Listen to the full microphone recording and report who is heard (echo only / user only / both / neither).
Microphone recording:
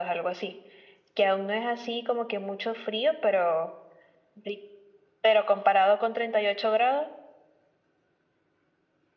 echo only